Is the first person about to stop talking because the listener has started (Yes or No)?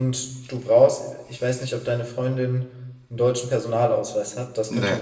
No